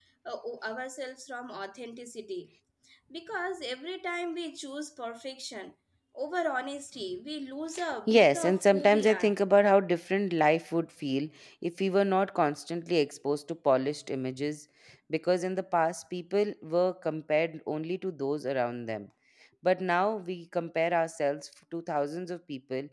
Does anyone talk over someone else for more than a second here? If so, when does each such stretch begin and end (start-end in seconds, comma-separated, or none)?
8.1-9.3